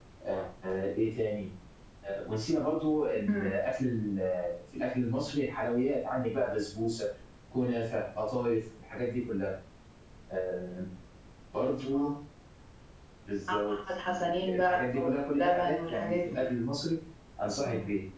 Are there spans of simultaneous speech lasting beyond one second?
Yes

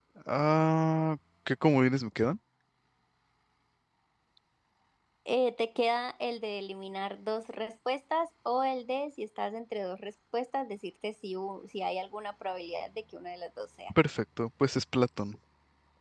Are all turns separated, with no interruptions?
Yes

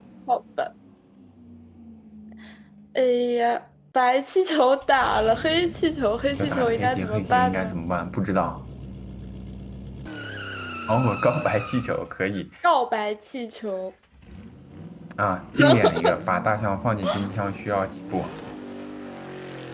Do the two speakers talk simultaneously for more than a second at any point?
Yes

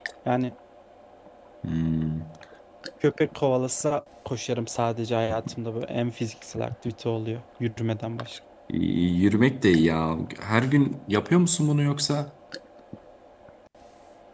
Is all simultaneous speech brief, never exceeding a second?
Yes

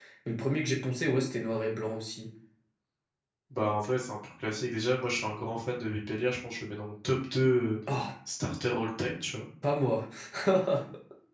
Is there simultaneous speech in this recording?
No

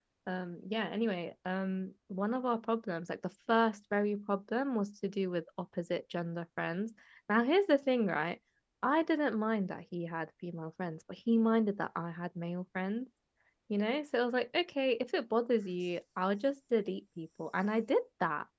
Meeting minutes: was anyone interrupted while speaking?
No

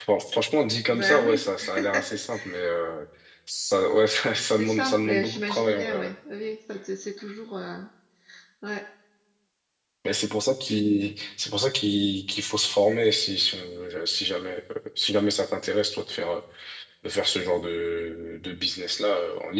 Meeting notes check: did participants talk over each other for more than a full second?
Yes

